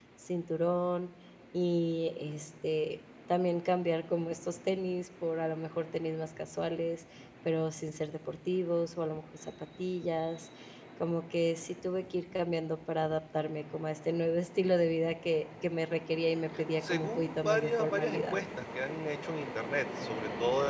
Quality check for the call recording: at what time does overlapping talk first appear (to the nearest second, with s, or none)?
17 s